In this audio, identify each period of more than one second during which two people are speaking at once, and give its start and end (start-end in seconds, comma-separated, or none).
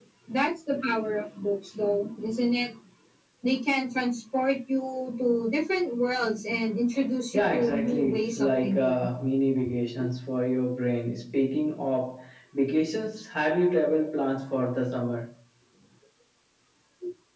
7.3-8.8